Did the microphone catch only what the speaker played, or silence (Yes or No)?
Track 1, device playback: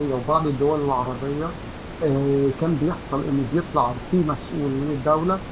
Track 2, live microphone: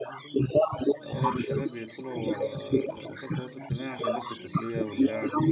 No